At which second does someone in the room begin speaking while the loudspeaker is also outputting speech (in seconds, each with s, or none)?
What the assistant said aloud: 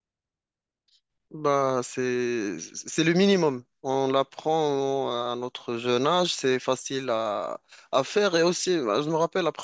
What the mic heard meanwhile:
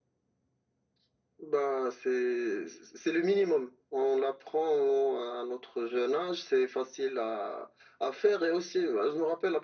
none